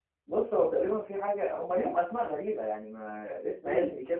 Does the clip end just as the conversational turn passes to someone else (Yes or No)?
No